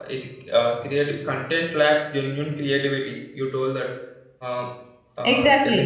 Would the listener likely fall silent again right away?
No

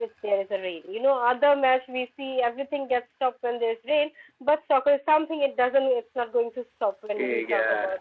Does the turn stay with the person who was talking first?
No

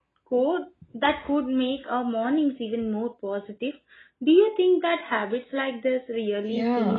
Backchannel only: No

